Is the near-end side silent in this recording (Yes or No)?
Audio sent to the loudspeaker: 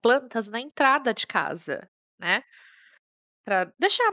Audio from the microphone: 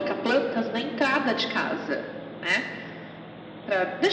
Yes